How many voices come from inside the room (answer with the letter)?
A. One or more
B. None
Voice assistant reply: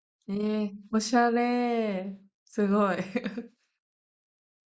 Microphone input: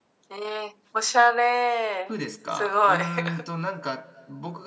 A